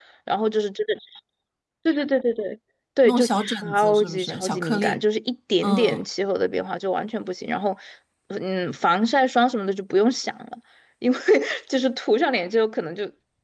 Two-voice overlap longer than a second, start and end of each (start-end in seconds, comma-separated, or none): 3.0-5.0